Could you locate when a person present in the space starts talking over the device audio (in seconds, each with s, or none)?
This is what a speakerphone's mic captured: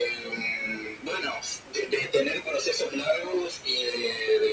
none